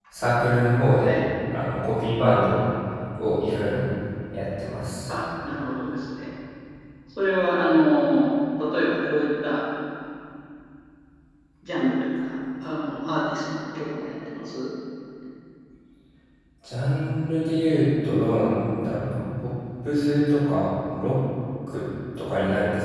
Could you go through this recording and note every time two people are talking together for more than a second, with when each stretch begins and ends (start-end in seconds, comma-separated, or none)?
none